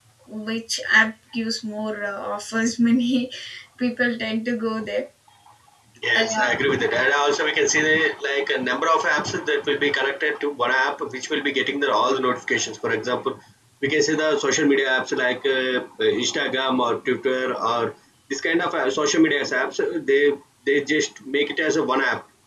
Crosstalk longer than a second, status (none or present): none